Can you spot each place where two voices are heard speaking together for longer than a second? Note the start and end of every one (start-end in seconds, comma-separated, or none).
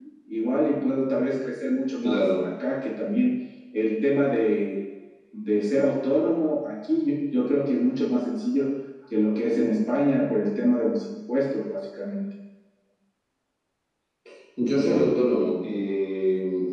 none